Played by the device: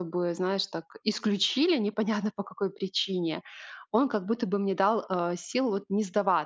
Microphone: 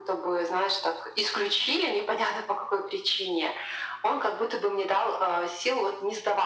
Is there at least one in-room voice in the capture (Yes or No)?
No